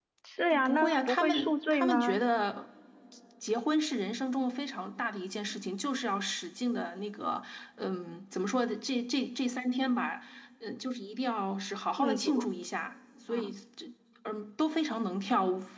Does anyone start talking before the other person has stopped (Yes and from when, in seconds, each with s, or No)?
Yes, from 0.5 s